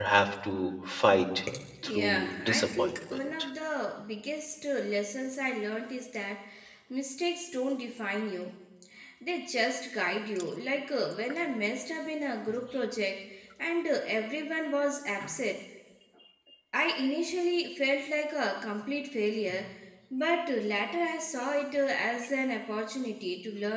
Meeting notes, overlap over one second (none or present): present